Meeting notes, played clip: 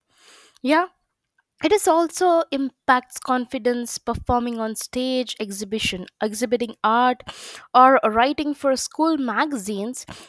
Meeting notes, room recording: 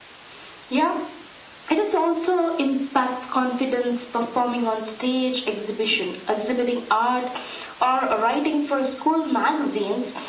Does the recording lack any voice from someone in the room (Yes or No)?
Yes